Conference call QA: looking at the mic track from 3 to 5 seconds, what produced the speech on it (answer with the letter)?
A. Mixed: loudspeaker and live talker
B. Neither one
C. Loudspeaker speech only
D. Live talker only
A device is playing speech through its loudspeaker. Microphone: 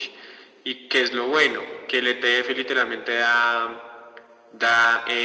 C